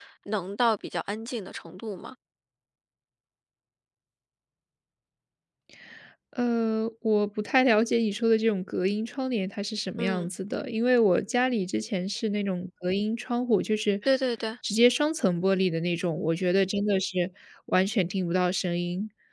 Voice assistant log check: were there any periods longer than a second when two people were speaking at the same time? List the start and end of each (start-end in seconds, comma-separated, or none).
none